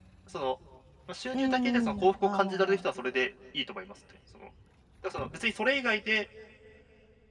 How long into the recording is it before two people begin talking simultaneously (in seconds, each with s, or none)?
1.3 s